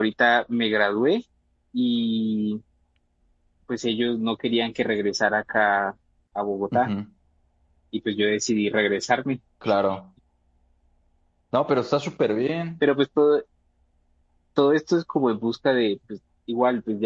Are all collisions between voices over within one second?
Yes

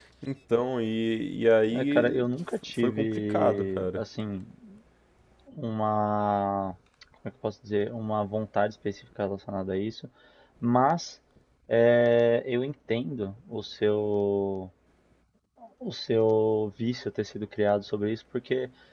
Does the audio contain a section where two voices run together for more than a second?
Yes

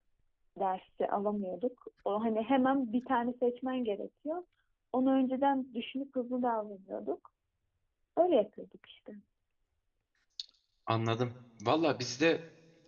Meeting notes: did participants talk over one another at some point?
No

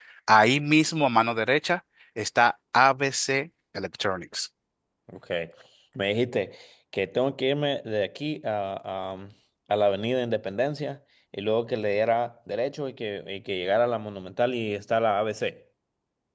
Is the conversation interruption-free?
Yes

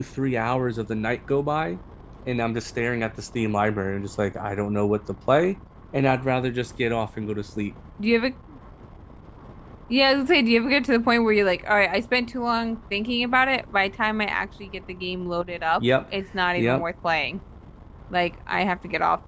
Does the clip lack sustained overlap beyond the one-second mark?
Yes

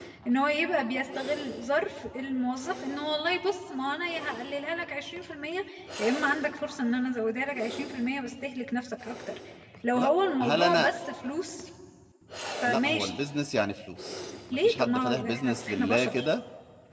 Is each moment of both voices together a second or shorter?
No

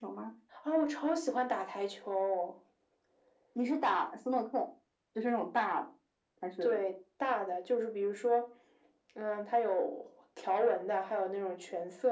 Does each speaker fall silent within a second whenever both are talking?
Yes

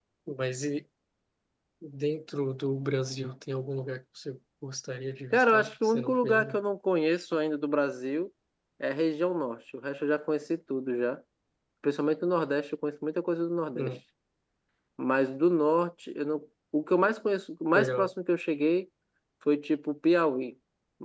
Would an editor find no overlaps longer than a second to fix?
No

